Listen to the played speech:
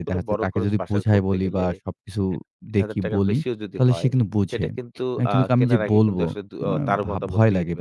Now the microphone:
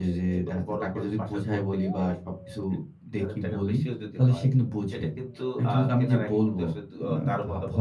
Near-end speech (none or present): none